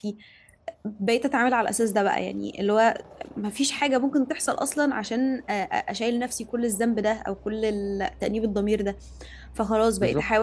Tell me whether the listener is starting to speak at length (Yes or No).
No